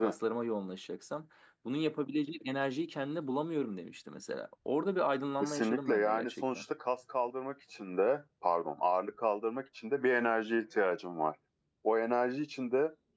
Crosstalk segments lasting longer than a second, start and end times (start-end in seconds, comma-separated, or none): 5.4-6.6